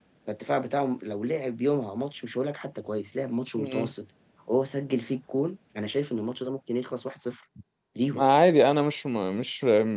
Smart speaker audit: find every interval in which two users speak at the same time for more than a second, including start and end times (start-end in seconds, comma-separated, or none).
none